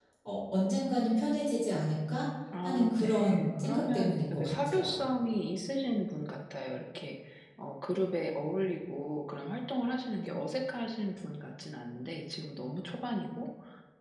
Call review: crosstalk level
present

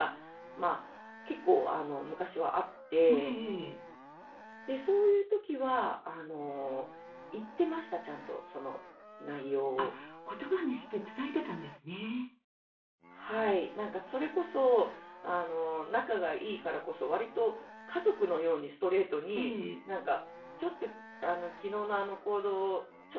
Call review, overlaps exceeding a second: none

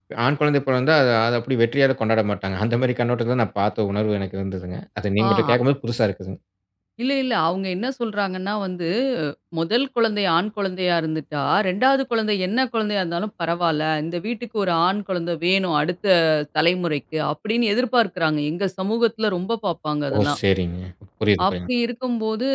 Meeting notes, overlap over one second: none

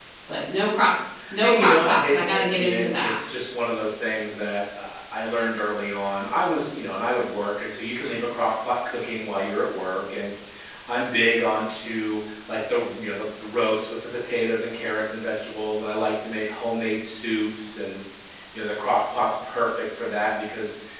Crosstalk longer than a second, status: present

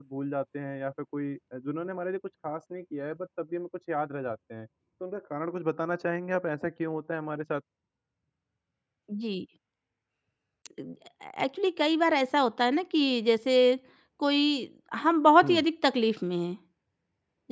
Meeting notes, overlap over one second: none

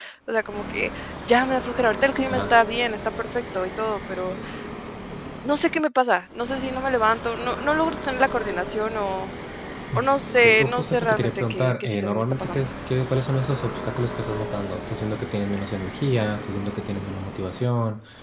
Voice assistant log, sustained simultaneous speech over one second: present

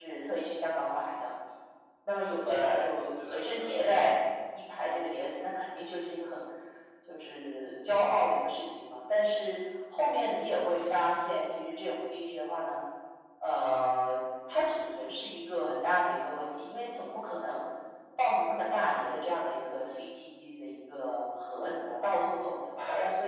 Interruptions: present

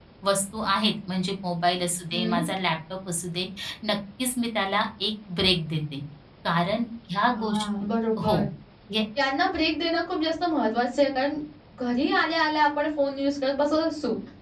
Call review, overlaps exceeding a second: none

